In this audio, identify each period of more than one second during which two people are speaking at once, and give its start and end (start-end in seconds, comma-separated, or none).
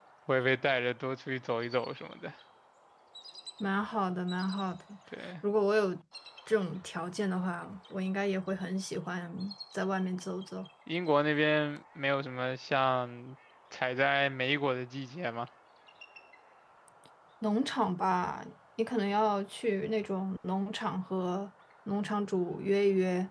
none